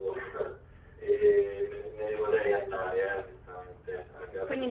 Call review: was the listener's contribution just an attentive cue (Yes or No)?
No